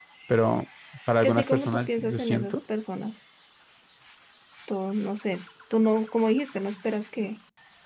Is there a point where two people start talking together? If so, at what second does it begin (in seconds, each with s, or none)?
1.2 s